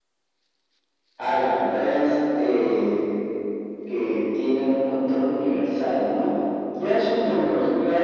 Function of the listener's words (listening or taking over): listening